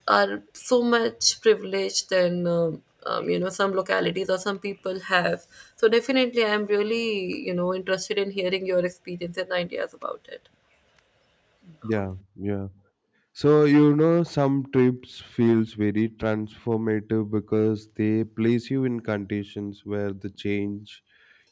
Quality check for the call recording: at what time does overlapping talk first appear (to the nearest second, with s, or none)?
none